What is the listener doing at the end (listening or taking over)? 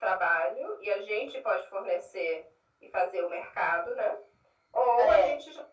listening